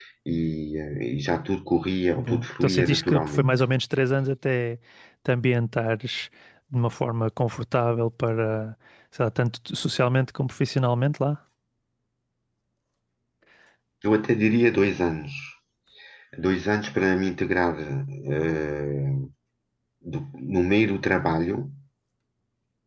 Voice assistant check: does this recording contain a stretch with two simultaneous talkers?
Yes, from 2.1 s

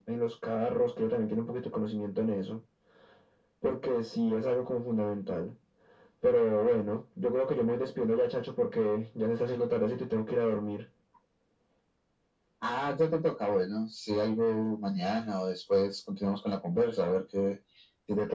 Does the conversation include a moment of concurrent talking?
No

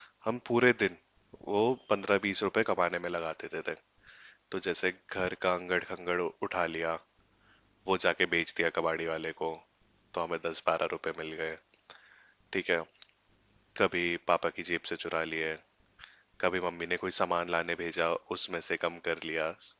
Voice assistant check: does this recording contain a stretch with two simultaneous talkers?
No

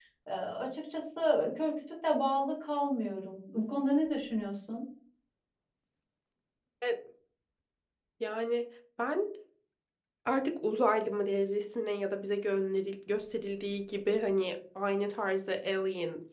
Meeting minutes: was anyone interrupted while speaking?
No

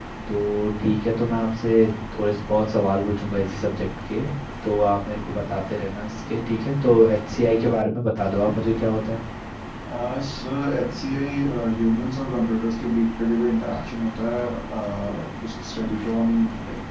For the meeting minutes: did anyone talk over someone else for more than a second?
No

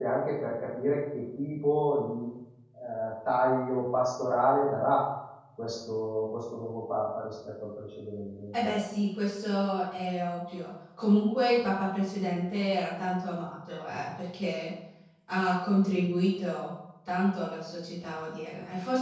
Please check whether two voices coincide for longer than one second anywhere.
No

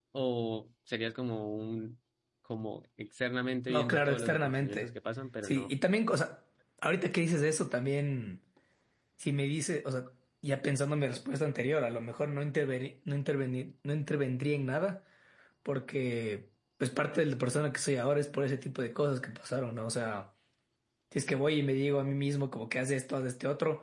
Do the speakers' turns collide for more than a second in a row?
Yes, from 3.7 s

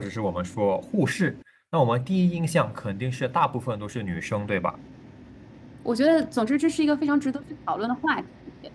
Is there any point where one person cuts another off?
No

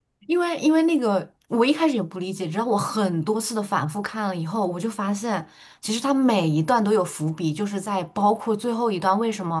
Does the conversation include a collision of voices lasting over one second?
No

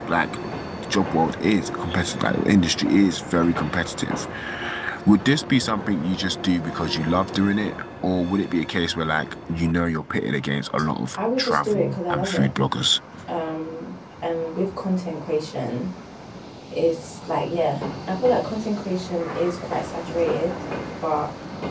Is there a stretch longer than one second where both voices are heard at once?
Yes, from 11.2 s

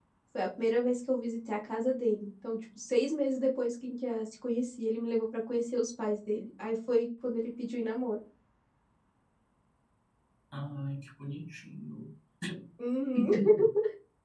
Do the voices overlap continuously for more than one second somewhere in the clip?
No

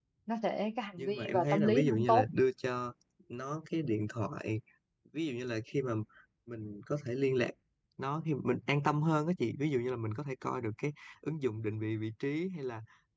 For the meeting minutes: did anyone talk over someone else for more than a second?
Yes, from 1.0 s

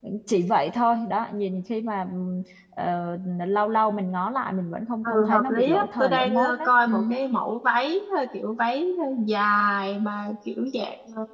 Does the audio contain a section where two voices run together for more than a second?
Yes, from 5.0 s

